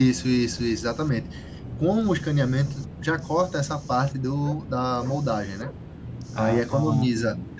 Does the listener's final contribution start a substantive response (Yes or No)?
No